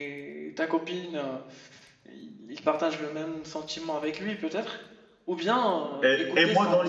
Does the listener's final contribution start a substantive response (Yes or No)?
Yes